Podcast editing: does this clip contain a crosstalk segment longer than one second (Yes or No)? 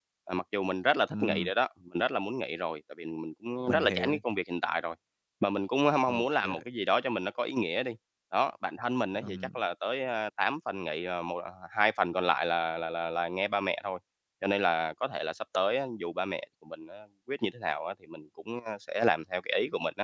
No